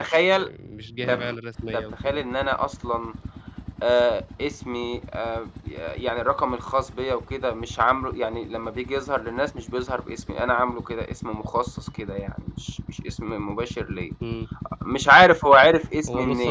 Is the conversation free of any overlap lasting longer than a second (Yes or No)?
Yes